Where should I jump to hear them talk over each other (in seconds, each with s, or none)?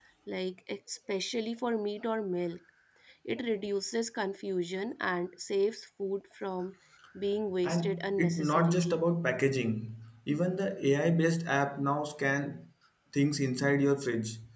7.6 s